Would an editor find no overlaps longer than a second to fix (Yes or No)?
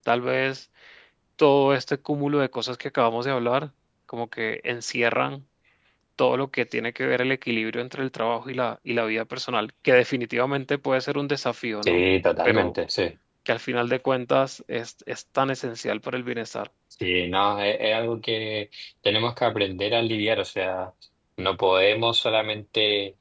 Yes